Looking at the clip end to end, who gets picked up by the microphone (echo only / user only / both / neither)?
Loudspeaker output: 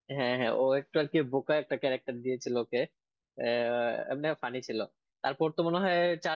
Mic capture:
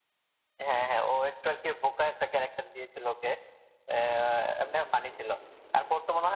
echo only